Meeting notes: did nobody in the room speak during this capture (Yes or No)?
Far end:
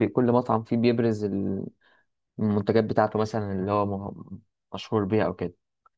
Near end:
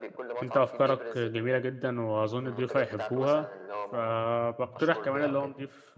No